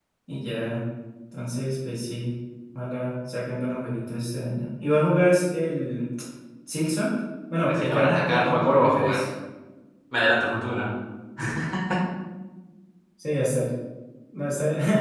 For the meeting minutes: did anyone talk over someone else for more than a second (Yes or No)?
Yes